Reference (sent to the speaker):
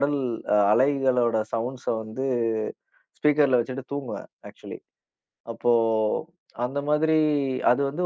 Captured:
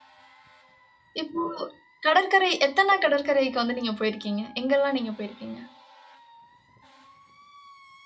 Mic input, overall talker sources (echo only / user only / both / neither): user only